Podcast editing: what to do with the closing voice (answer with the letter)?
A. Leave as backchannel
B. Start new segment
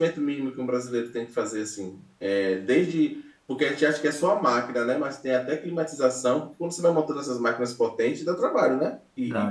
B